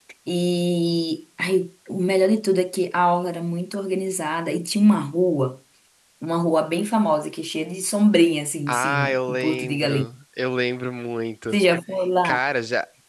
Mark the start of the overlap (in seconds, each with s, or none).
8.7 s